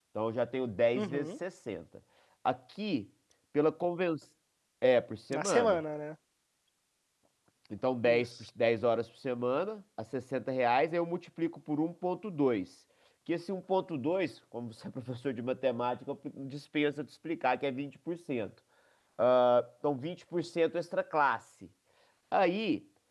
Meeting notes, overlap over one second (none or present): none